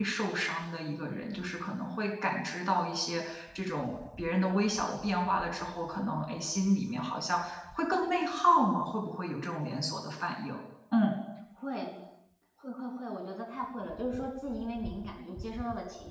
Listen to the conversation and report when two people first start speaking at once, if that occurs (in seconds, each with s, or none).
none